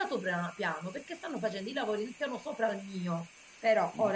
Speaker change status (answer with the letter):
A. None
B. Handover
A